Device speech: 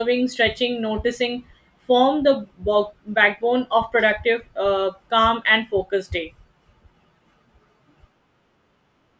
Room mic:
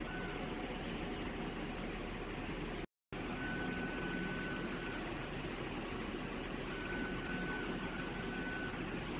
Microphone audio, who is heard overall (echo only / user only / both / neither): neither